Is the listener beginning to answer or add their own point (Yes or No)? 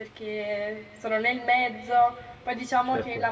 No